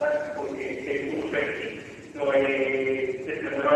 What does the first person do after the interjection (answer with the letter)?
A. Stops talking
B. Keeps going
A